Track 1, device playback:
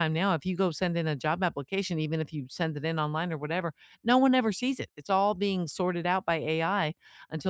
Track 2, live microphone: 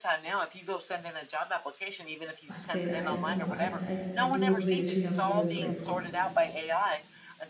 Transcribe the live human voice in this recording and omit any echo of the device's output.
like I said, I, you know, I I I do agree that you have some really great points.

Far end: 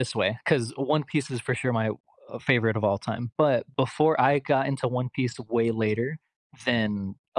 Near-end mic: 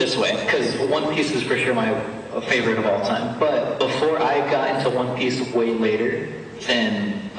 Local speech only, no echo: none

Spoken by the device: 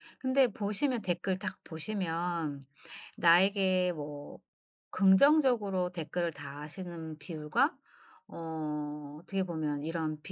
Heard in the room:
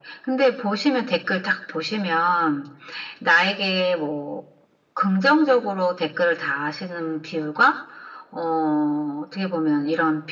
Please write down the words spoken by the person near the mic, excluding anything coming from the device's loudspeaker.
none

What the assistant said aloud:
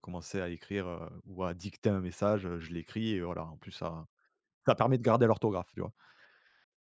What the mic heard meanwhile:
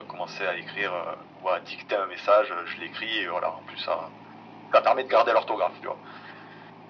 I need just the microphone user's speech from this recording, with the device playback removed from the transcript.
none

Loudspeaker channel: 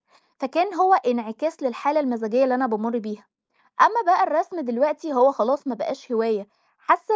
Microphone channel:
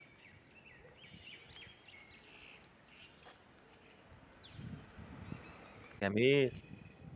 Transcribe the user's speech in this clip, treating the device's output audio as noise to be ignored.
جميل،

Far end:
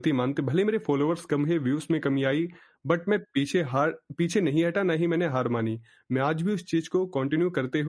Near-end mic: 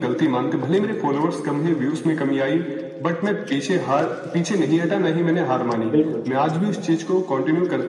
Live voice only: बिल्कुल, बिल्कुल।

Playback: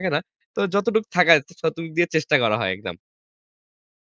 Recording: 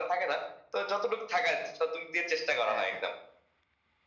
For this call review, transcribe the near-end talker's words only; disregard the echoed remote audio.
হ্যাঁ, হ্যাঁ।

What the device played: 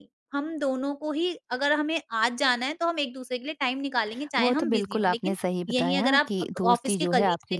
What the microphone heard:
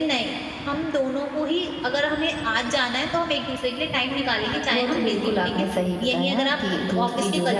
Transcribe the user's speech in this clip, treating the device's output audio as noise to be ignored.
none

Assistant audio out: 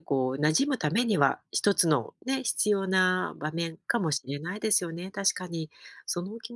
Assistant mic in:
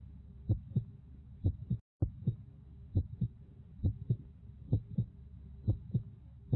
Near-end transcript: none

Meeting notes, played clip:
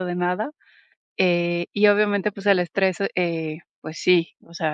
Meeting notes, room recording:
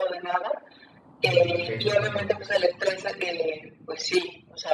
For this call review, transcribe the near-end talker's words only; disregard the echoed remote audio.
Mm, okey, comprendo.

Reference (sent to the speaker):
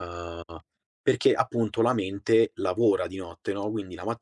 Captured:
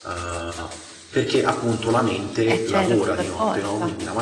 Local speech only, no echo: Eh certo, per forza.

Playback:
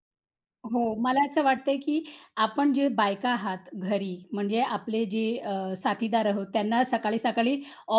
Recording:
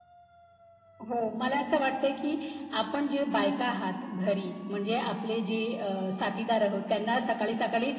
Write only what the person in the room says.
none

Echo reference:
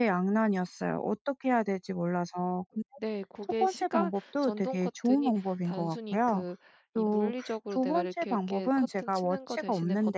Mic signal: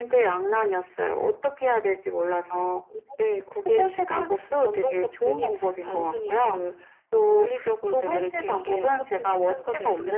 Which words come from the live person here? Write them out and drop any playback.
none

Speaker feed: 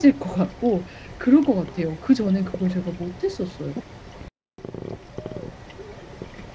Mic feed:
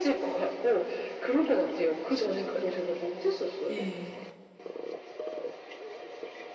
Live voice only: 네.

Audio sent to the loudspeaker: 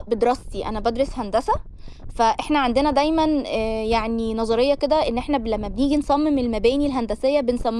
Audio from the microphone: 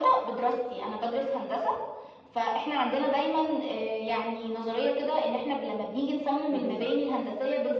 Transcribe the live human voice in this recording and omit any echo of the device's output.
اهم،

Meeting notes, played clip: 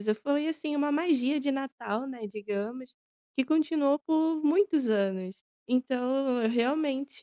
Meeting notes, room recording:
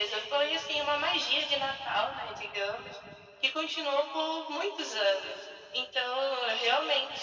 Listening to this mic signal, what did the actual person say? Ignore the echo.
none

